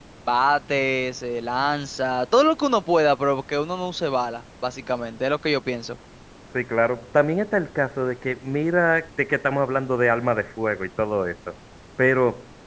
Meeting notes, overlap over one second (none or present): none